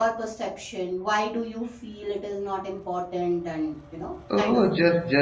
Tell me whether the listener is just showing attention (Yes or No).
No